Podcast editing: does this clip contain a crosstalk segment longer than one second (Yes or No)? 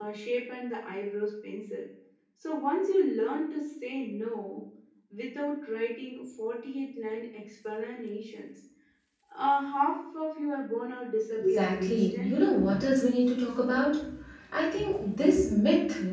Yes